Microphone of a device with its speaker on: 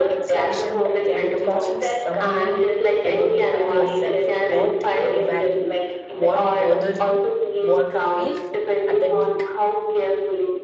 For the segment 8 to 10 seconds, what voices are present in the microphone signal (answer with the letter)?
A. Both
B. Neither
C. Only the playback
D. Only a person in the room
A